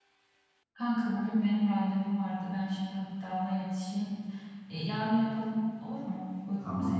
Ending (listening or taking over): taking over